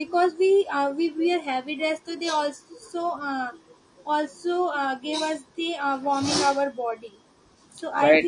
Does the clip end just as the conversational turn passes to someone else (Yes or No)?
No